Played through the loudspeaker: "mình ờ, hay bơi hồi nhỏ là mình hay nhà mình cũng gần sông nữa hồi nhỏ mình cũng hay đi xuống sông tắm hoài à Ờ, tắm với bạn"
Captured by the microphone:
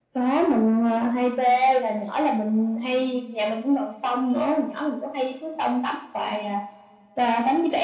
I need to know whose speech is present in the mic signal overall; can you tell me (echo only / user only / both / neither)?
echo only